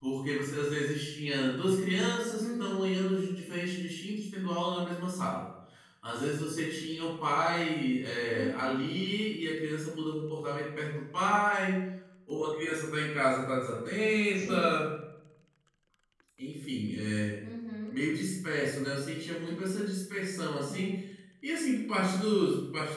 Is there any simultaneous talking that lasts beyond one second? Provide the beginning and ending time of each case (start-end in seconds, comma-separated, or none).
none